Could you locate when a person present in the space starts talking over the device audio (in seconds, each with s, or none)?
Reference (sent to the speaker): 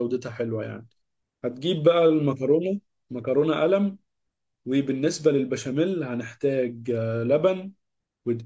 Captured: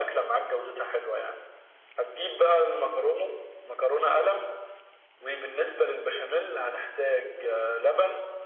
none